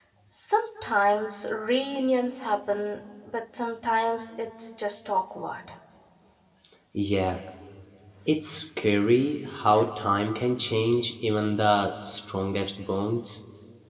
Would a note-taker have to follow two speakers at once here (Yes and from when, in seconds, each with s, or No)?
No